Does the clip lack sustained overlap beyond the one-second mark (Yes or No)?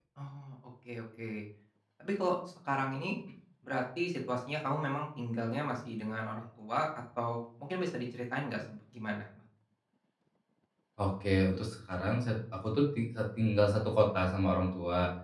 Yes